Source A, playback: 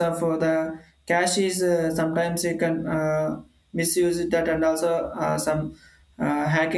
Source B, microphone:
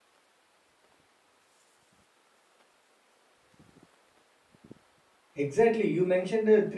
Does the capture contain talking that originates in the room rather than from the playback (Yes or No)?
Yes